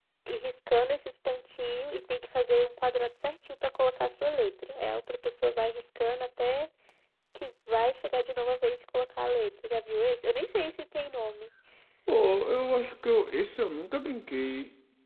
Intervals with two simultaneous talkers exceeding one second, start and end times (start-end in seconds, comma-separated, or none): none